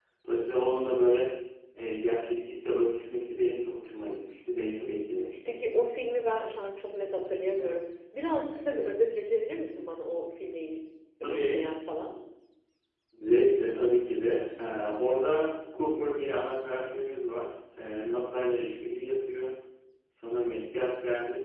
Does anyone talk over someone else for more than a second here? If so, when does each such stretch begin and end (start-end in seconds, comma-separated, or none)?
none